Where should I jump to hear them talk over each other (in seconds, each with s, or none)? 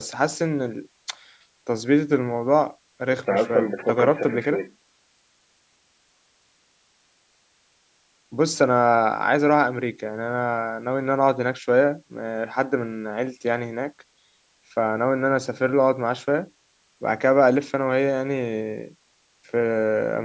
3.3 s